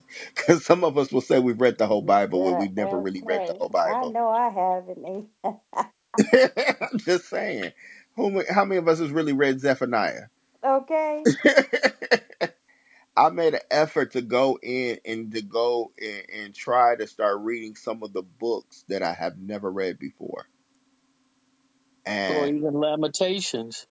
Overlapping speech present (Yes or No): Yes